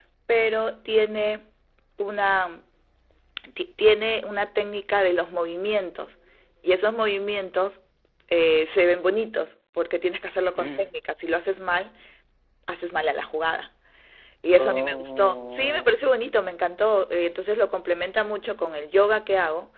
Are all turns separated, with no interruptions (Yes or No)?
No